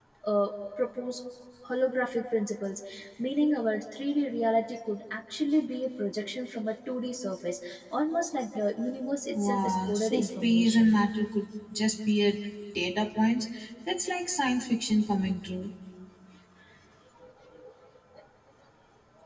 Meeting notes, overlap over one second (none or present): present